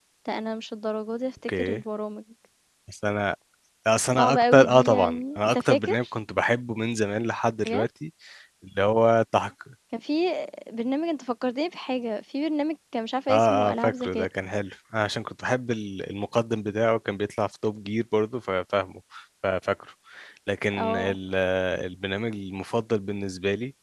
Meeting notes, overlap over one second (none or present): present